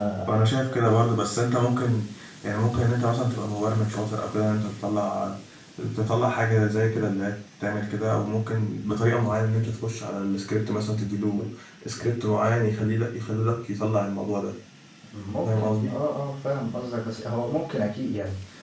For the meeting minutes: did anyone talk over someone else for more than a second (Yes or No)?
No